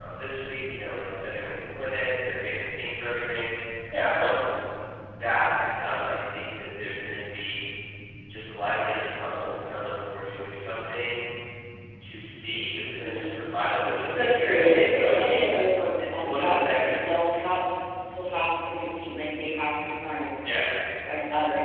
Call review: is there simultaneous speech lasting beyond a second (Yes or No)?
Yes